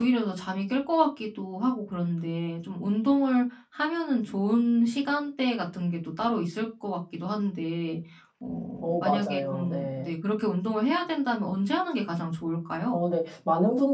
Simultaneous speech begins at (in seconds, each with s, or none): 8.8 s